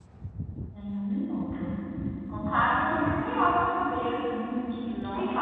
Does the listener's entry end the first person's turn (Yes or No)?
Yes